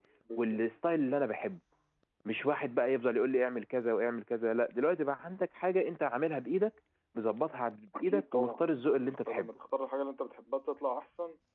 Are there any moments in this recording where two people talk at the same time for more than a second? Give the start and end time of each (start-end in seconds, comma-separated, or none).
8.0-9.5